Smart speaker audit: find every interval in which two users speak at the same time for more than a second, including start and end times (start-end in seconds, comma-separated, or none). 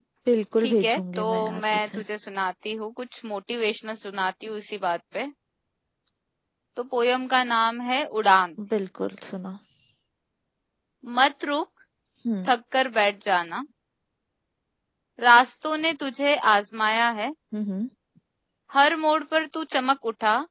0.6-2.0